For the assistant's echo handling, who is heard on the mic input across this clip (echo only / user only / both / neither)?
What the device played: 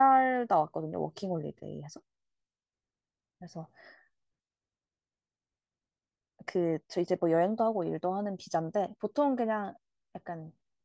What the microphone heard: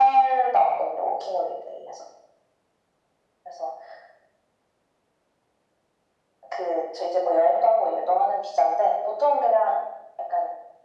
echo only